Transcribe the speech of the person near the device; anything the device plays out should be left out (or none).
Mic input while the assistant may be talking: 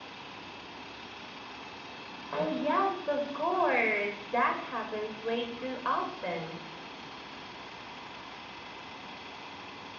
Oh yes, of course. That happens way too often.